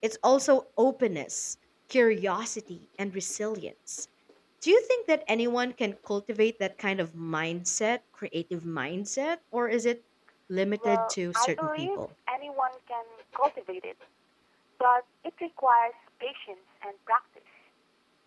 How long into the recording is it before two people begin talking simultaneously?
10.8 s

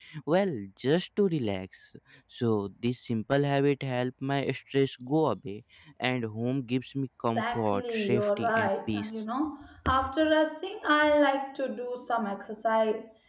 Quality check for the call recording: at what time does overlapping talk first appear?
7.3 s

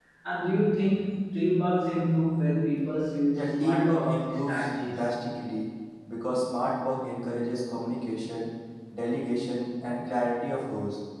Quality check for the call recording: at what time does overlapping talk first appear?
3.3 s

